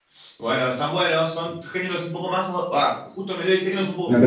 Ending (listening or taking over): taking over